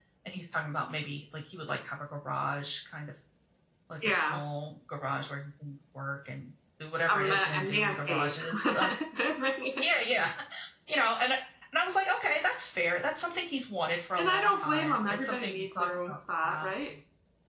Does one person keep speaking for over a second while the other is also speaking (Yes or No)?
Yes